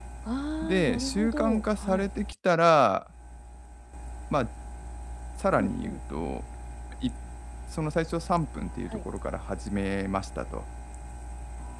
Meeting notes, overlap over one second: present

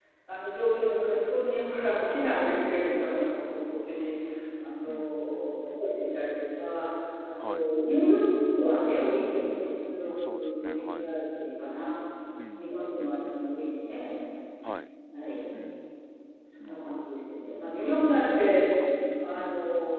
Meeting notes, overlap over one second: present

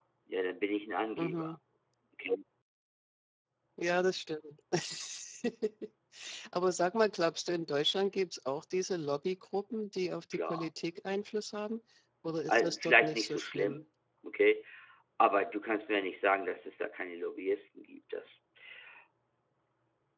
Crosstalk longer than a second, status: present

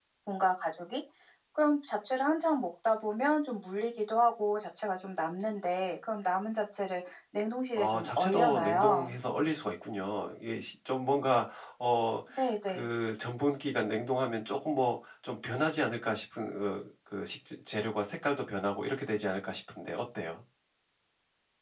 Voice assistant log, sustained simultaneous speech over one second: present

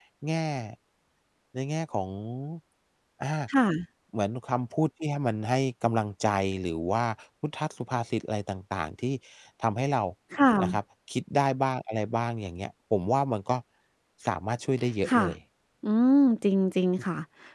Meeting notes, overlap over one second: none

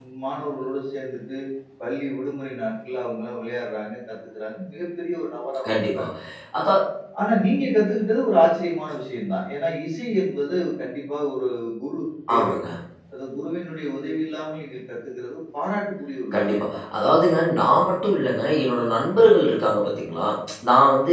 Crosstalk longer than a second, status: none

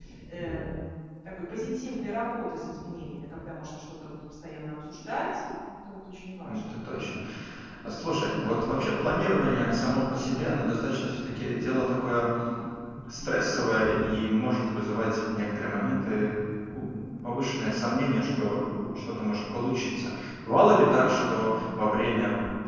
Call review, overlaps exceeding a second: none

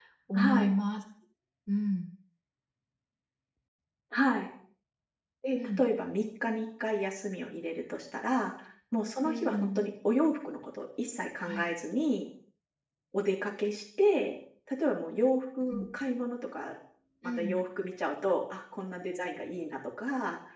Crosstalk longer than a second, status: none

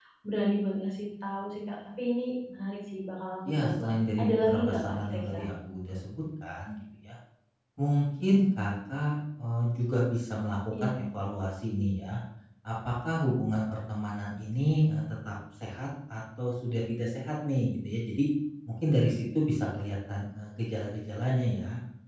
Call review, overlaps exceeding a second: present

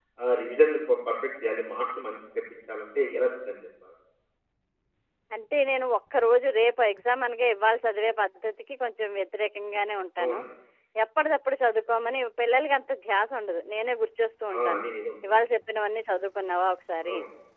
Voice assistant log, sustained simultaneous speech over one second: none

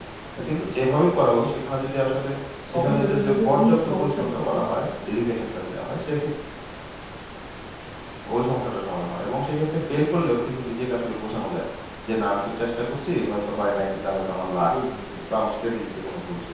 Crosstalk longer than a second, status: present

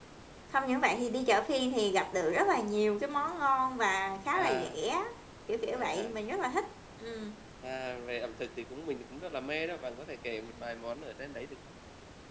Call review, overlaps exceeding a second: none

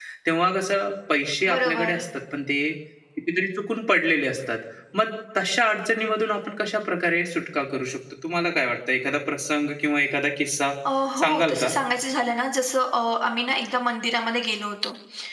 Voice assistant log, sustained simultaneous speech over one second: none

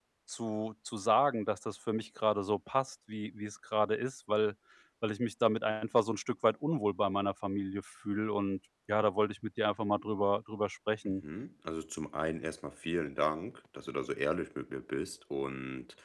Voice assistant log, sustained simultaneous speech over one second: none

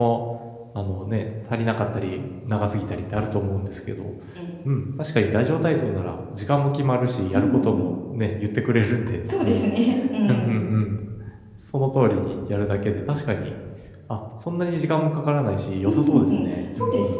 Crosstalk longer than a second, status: present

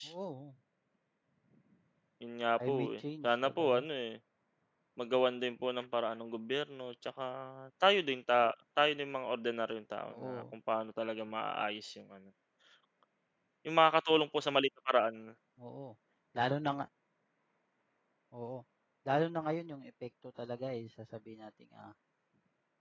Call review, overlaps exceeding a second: present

